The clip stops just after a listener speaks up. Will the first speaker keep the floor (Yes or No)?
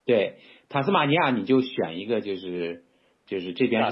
Yes